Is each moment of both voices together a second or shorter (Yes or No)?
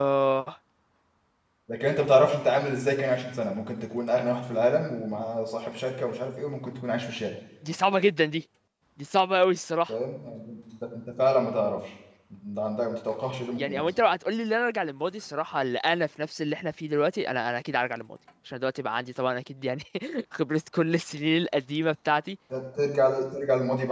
Yes